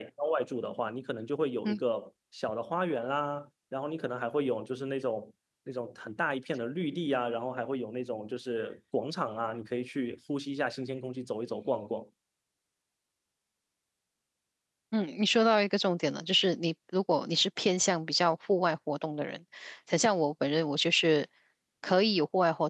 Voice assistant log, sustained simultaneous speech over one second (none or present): none